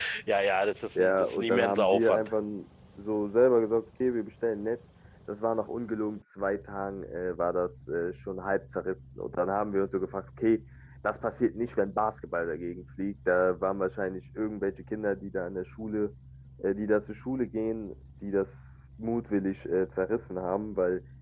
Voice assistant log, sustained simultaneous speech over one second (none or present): present